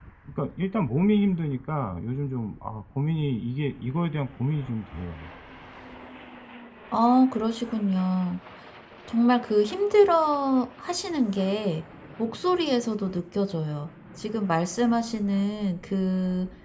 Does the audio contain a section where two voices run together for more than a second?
No

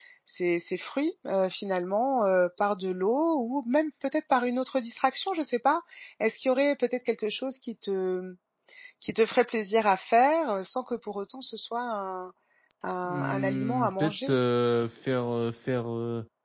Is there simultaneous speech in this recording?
Yes, from 13.1 s

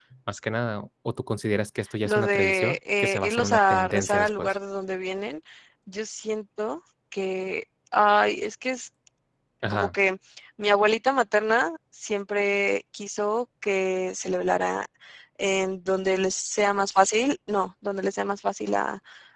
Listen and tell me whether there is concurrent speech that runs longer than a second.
Yes, from 2.0 s

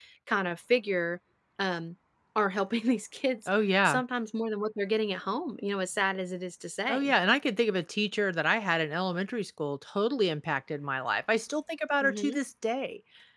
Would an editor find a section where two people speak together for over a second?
No

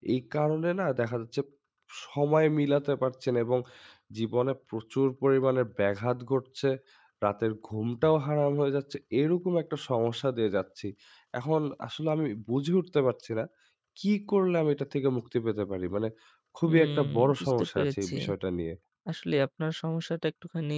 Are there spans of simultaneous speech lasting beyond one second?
Yes, from 16.7 s

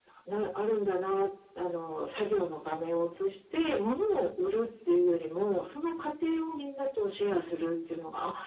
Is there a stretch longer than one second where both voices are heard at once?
No

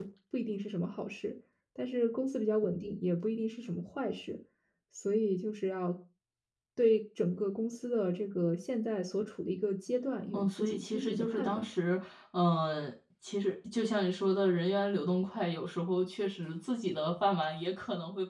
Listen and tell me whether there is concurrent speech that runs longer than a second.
Yes, from 10.3 s

